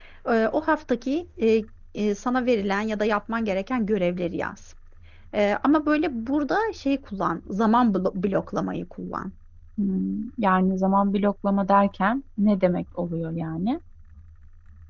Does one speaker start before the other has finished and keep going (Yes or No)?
No